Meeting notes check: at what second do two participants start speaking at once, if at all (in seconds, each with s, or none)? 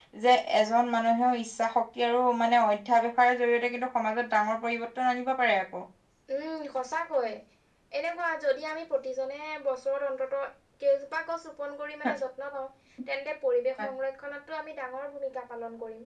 none